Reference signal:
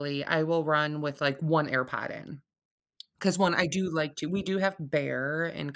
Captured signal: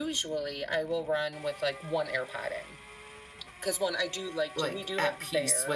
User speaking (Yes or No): Yes